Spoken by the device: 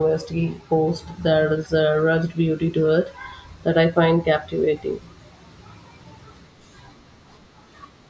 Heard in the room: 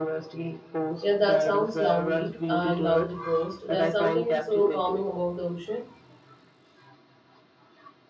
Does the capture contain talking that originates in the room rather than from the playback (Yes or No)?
Yes